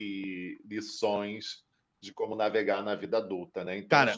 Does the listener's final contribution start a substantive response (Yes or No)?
No